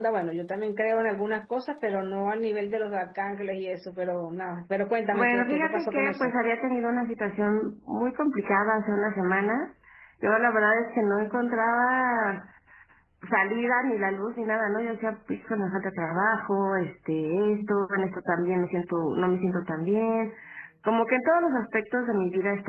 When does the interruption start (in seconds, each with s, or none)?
5.1 s